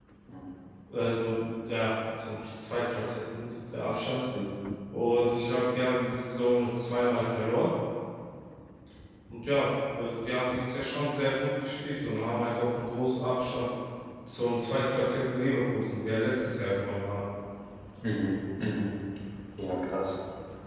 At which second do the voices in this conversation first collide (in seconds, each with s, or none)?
none